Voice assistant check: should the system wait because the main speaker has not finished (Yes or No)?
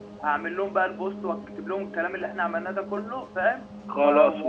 No